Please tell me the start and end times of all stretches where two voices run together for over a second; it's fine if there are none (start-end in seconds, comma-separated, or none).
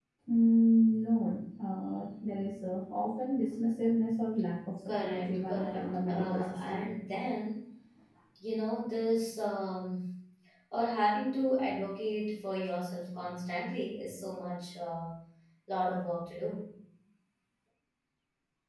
4.9-6.9